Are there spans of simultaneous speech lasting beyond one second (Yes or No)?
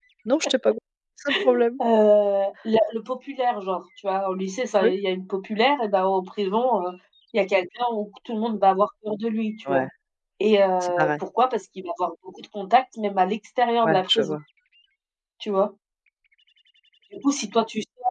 No